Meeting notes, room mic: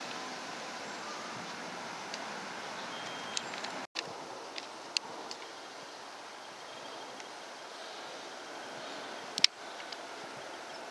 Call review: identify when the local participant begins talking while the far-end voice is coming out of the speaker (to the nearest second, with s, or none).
none